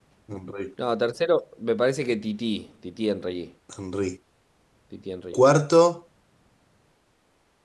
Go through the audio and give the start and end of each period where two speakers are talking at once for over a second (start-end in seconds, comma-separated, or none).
none